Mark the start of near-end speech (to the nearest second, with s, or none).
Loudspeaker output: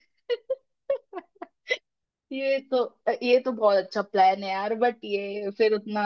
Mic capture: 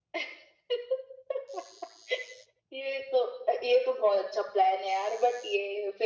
none